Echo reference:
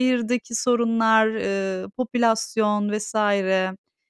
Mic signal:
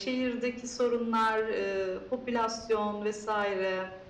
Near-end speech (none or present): none